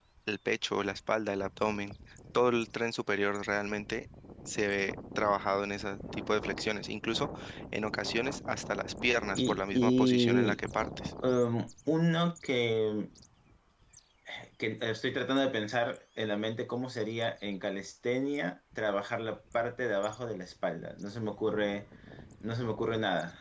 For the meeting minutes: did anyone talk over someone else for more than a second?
Yes, from 9.4 s

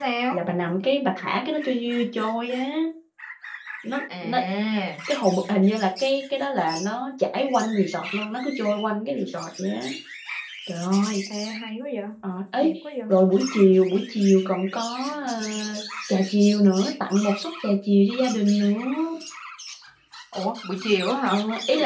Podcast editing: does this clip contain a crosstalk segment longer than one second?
No

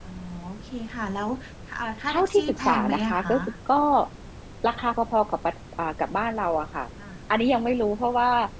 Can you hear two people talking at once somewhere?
Yes, from 2.1 s

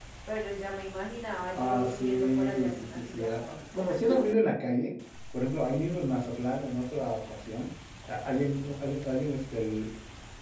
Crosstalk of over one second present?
Yes, from 1.5 s

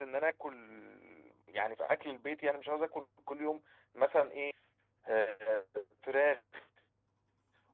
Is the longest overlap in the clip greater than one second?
No

